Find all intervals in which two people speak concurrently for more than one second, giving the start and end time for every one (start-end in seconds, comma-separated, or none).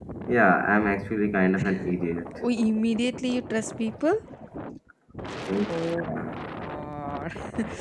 none